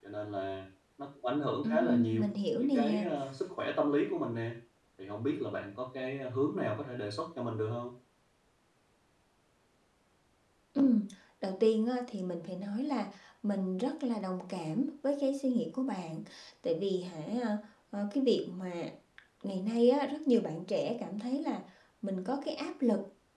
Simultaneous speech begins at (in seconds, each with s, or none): 1.6 s